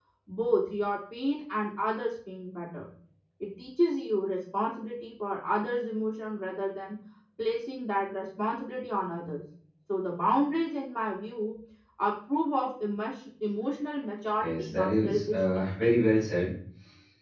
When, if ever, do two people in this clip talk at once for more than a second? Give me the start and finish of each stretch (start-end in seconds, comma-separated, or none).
14.4-16.1